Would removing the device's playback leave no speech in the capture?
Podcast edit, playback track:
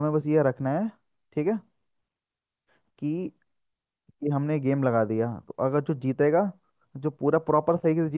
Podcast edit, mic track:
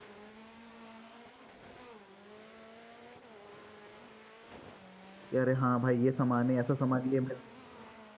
No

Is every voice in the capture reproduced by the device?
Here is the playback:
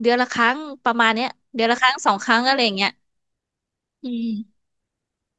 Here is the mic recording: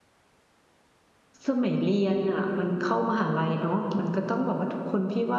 No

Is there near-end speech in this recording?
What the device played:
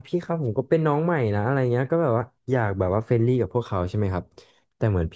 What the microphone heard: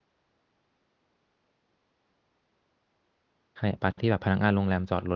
Yes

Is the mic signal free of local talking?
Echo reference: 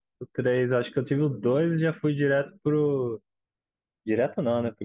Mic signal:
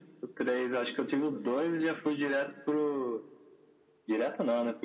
Yes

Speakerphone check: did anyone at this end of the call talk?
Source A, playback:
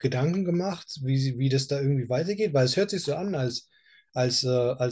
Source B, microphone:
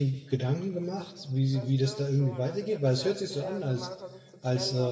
Yes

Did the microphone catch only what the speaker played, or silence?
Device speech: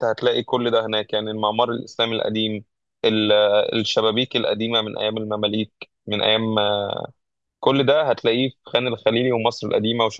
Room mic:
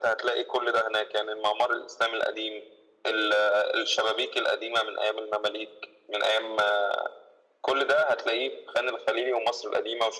Yes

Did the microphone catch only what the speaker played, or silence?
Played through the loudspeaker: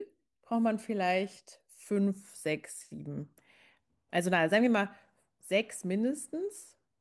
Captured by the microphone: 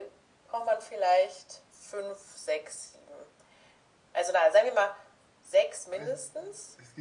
No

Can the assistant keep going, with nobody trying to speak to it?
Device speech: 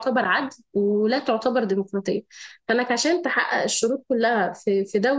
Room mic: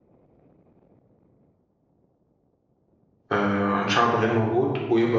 No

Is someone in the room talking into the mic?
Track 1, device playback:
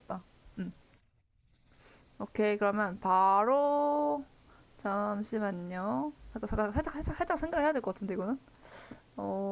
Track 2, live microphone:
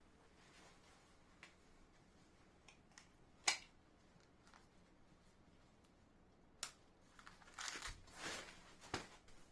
No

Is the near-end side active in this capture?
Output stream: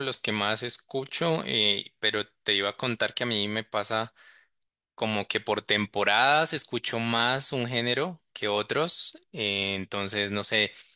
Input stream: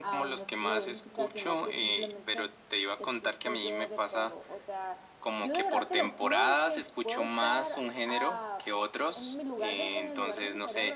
Yes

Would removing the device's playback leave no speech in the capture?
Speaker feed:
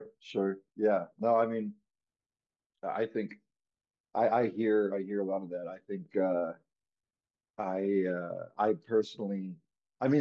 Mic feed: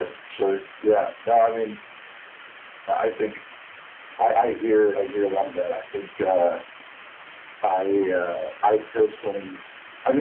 Yes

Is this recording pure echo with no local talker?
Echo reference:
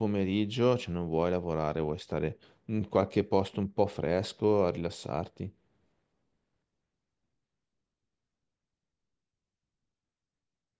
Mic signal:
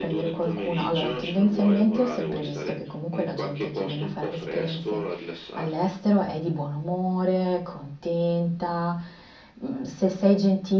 No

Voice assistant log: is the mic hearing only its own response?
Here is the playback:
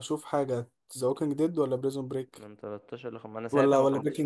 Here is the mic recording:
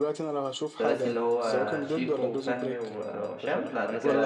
No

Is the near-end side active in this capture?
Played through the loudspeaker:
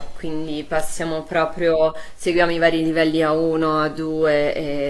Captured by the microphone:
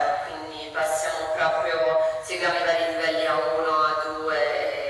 No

